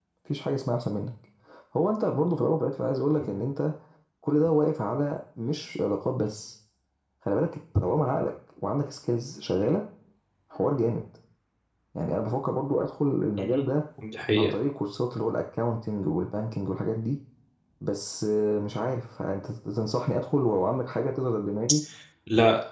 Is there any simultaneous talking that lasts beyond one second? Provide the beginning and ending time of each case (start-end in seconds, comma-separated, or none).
none